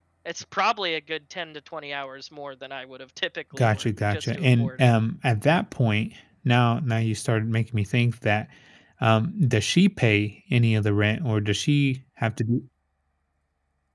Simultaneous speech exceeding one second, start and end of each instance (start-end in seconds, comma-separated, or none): 3.5-4.9